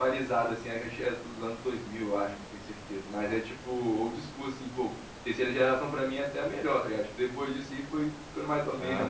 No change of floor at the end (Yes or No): No